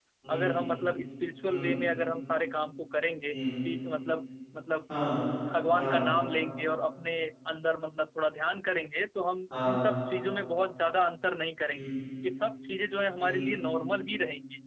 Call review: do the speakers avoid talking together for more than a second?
Yes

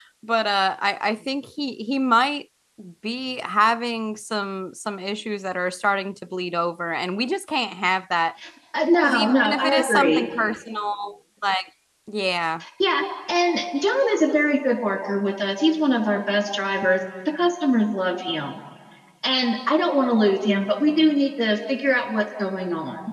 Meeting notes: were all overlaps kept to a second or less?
No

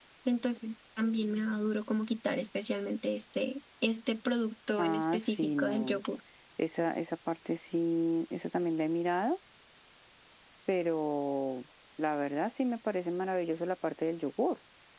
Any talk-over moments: Yes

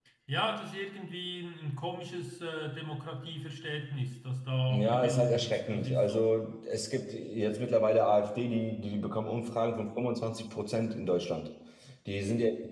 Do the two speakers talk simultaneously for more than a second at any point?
Yes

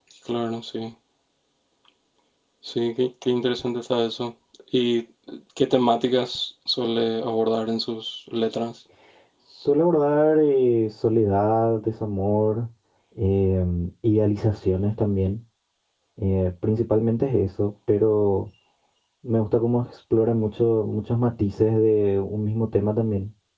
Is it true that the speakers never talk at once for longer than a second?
Yes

